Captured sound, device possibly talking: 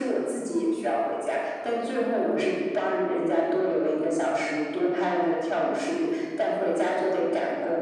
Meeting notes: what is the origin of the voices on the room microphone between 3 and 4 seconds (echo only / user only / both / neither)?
echo only